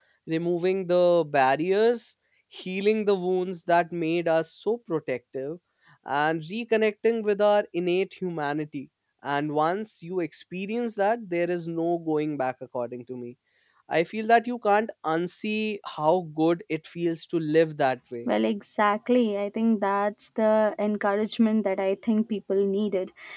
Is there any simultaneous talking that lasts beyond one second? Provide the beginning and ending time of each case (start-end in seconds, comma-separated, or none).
none